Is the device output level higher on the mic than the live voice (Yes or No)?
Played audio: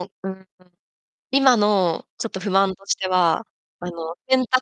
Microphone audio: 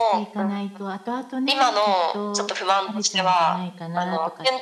Yes